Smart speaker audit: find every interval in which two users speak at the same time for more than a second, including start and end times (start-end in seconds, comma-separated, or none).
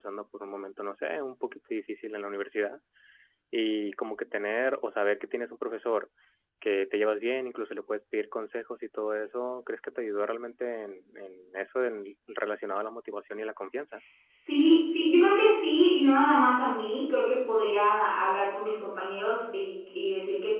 none